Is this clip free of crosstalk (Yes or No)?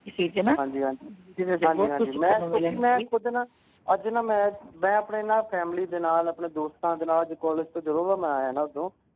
No